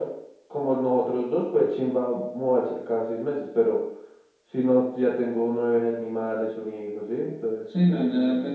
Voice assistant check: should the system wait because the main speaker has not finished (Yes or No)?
No